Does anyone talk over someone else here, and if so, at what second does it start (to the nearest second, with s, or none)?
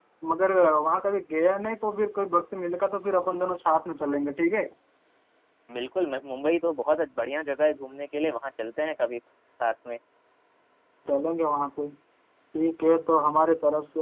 none